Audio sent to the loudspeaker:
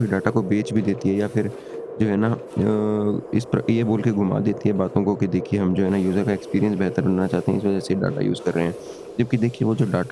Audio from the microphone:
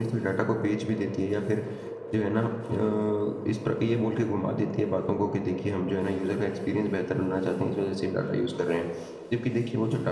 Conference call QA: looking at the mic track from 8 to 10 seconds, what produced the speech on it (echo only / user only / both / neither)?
echo only